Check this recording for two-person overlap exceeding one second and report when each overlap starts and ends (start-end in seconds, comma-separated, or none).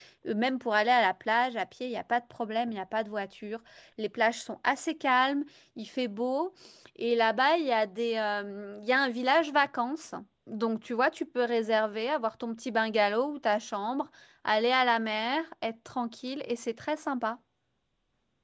none